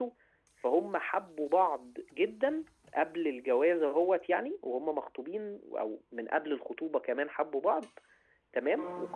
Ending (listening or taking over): listening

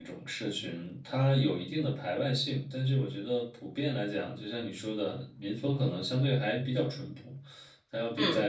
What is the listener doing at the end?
listening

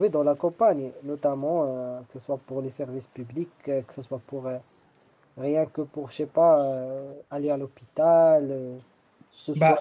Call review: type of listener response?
taking over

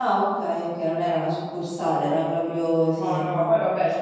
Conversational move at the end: taking over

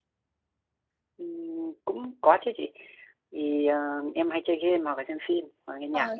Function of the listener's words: taking over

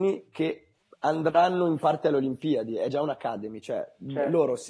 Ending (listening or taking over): listening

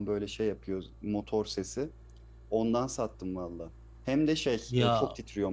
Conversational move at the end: listening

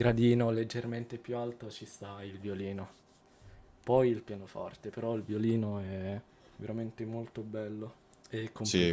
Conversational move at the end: taking over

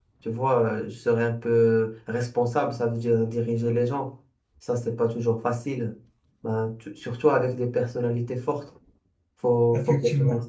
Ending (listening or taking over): listening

